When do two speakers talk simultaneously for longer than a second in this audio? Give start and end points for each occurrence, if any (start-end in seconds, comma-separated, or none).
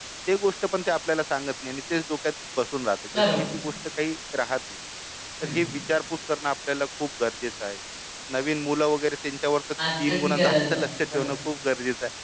10.0-11.3